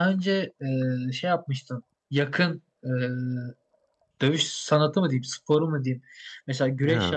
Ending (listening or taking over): listening